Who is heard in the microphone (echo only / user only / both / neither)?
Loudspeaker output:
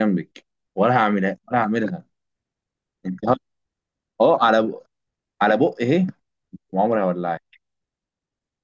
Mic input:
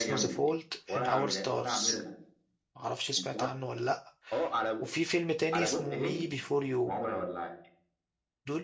both